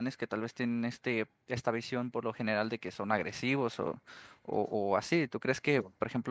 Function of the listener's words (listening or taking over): listening